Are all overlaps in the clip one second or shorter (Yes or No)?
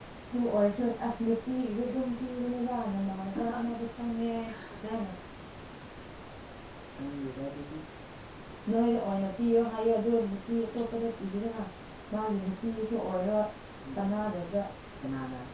Yes